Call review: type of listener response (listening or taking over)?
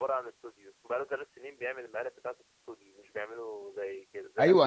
taking over